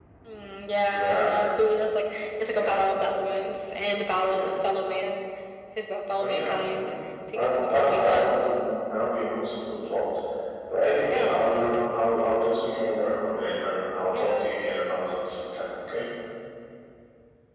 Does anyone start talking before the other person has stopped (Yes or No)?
Yes